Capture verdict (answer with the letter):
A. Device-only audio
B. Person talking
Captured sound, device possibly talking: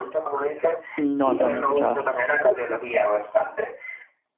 B